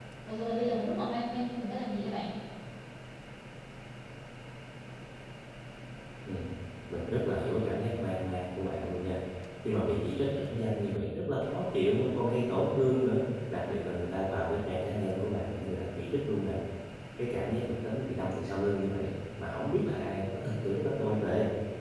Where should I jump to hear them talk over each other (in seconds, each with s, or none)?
none